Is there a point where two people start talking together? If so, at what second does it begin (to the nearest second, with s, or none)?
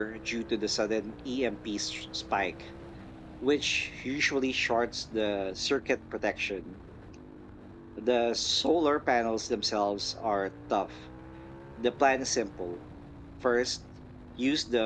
none